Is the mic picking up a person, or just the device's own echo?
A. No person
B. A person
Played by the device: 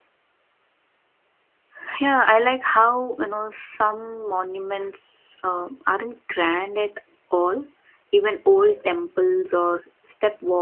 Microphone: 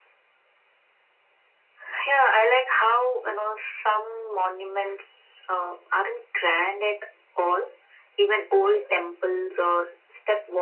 A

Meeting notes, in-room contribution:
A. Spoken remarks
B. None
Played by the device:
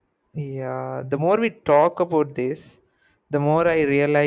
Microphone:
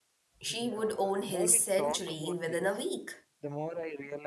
A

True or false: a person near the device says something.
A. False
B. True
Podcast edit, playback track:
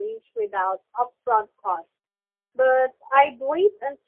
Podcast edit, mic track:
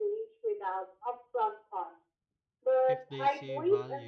B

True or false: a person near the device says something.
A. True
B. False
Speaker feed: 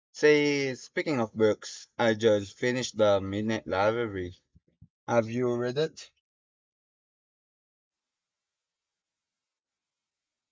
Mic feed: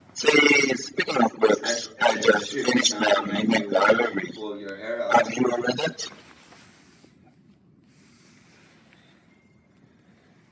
A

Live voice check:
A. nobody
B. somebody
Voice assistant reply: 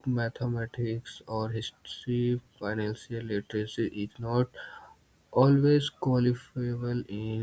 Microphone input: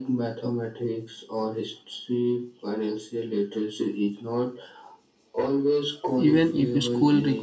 B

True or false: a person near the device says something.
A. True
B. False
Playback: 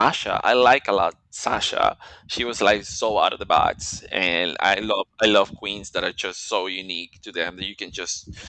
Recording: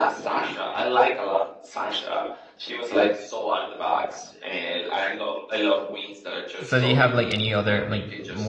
A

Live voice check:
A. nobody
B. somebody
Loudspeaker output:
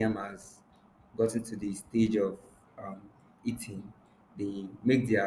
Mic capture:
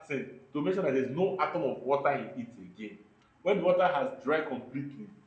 B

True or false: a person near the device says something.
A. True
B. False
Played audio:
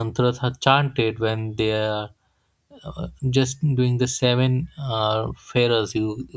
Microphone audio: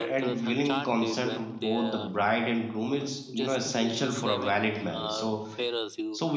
A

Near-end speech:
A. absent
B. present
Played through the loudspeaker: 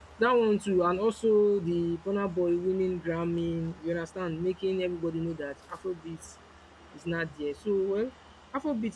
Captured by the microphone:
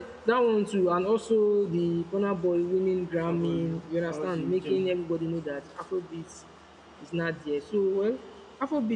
B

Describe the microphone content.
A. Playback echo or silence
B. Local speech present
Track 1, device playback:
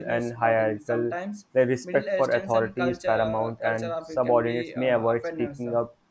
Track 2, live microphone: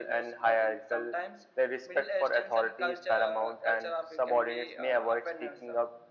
A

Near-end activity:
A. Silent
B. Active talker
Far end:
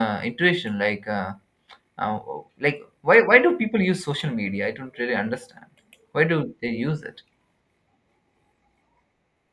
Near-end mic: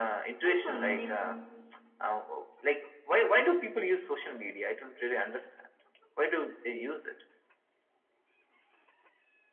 B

